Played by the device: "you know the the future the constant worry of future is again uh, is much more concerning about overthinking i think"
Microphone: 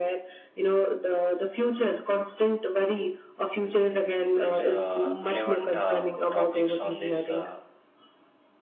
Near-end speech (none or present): present